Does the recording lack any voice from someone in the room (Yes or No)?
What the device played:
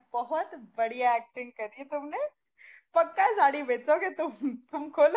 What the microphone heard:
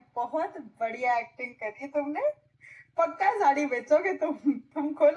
Yes